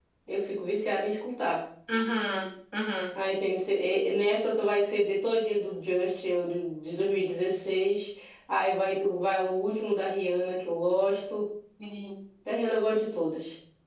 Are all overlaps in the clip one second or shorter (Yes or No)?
Yes